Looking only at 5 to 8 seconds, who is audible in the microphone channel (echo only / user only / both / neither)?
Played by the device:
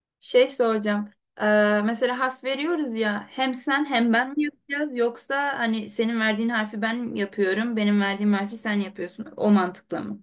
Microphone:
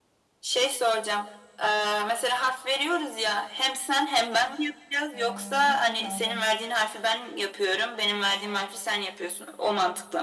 both